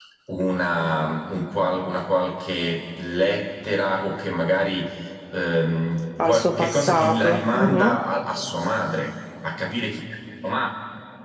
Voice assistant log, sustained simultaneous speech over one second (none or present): present